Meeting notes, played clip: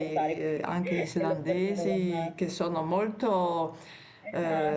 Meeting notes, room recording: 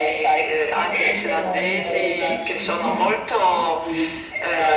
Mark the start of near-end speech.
0.6 s

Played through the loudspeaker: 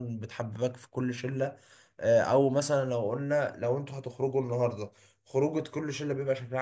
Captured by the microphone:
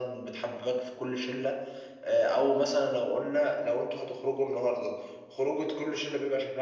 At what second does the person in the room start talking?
none

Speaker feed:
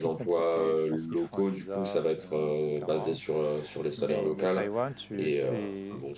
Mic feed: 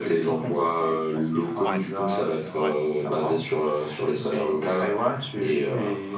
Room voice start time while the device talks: 1.6 s

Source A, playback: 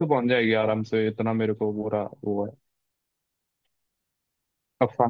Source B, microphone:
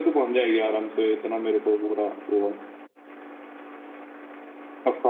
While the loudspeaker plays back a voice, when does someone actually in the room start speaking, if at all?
none

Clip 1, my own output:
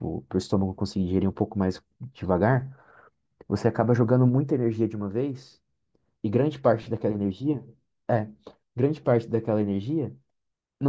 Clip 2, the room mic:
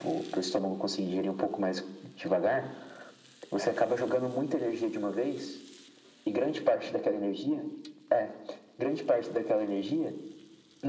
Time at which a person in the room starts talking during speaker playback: none

